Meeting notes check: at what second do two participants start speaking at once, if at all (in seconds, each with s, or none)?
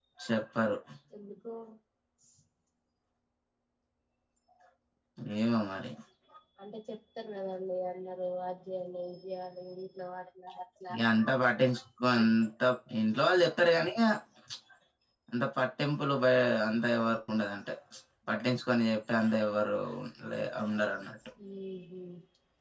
none